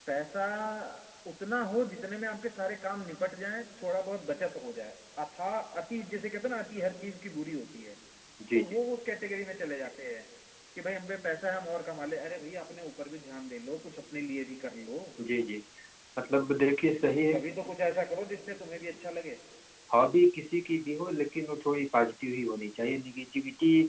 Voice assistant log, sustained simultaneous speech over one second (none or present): none